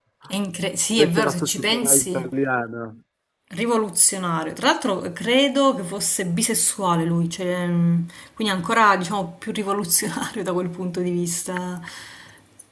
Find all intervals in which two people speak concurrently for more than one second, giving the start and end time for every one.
1.0-2.3

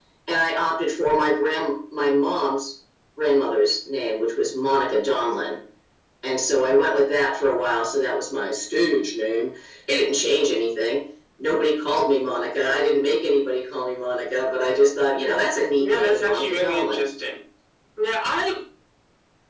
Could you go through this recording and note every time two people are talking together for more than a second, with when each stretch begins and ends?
15.8-17.1

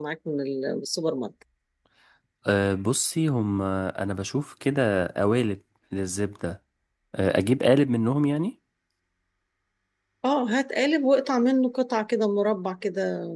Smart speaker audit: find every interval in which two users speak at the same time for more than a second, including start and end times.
none

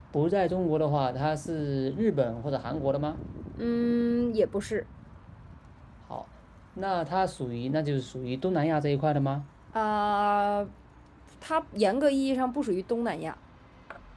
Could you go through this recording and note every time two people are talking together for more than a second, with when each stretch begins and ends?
none

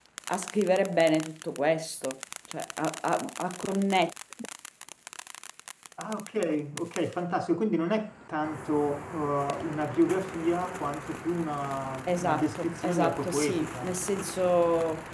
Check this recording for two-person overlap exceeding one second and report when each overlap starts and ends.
12.2-14.0

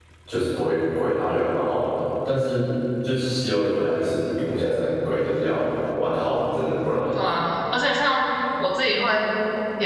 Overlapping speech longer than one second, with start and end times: none

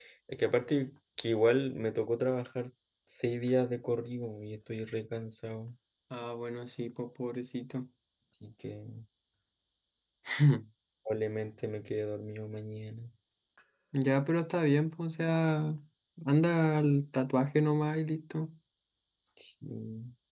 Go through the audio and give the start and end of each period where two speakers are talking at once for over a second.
none

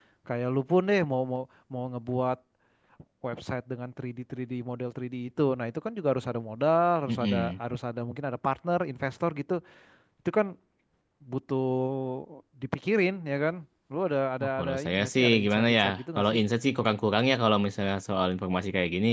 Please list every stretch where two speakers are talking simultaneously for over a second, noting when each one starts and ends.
14.4-16.4

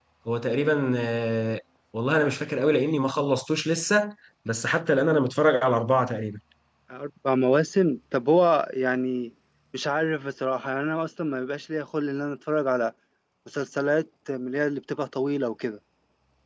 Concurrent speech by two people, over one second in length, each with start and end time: none

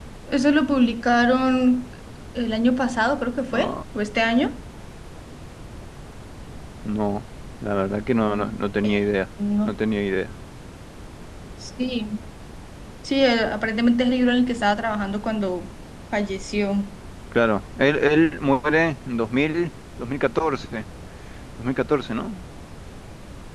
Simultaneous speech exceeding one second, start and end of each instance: none

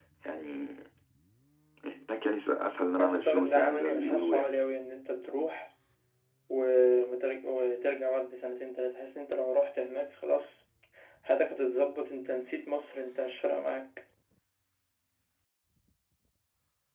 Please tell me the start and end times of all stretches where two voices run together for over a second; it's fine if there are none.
3.0-4.5

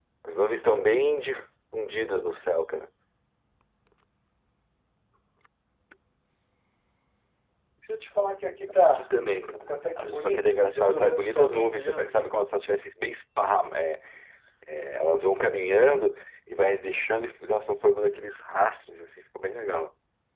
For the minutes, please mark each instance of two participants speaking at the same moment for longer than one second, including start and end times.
9.7-12.4

